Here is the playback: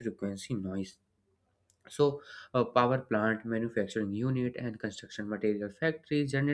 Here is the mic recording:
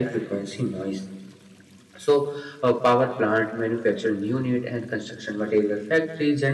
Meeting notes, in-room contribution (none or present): none